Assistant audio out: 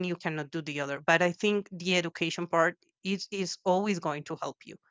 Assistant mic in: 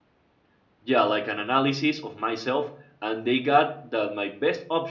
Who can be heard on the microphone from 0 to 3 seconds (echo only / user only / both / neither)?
user only